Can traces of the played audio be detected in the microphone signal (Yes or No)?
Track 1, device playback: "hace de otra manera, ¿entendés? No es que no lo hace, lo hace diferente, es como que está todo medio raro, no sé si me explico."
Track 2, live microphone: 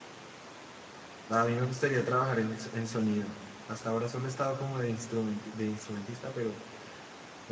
No